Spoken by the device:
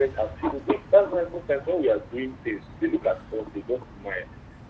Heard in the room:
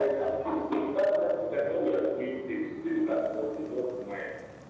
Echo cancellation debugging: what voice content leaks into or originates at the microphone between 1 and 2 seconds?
echo only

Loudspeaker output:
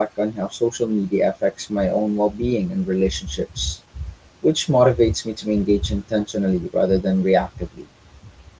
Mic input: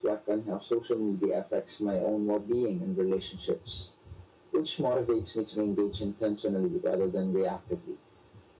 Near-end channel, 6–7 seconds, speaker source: echo only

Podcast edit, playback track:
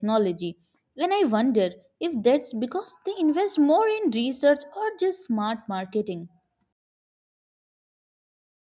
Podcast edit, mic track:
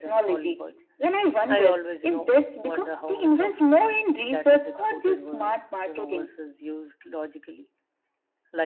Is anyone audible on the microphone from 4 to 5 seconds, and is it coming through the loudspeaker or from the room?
both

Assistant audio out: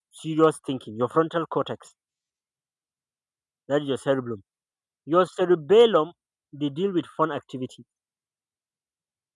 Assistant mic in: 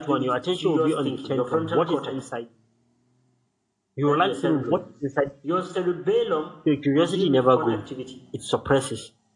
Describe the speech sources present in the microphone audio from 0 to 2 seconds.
both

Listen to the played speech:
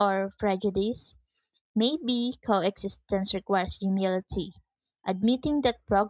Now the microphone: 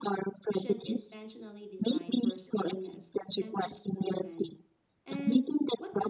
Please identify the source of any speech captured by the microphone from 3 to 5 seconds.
both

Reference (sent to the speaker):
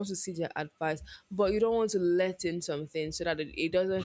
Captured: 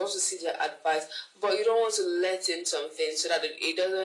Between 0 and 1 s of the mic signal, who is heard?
echo only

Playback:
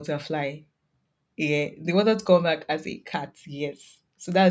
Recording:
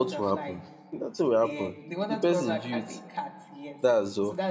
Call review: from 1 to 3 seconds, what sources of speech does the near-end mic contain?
both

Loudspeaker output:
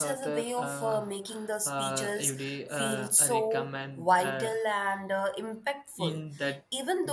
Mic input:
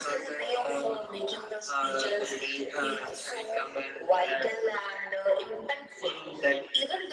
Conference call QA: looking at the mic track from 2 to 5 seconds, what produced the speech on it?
echo only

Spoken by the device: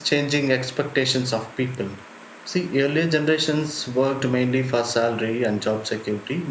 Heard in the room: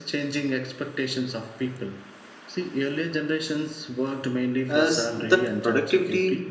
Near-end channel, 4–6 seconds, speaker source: both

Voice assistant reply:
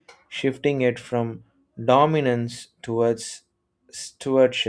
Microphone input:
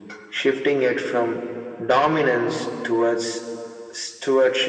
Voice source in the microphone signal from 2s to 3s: echo only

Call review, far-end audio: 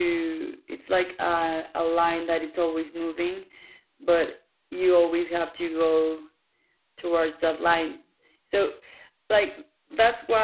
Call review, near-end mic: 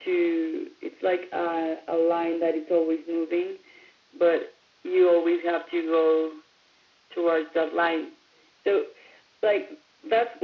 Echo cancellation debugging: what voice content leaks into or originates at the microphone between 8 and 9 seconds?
echo only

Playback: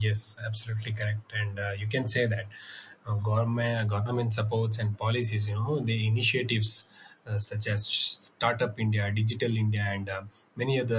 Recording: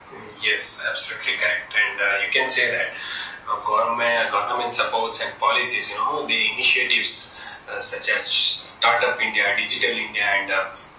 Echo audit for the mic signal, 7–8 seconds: echo only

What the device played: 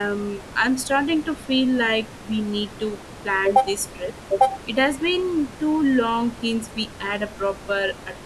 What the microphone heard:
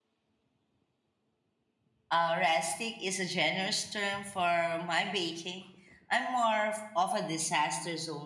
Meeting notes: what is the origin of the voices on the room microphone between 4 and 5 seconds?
user only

